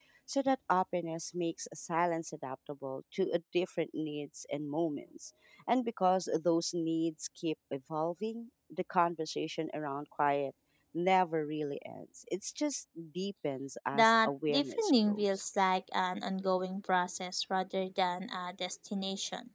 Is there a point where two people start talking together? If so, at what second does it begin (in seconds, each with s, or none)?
13.9 s